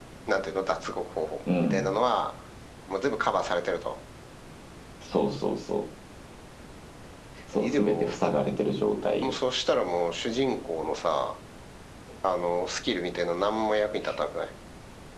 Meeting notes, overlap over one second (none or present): none